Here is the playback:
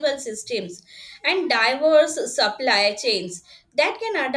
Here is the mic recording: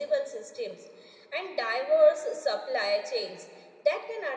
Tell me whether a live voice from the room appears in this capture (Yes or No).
No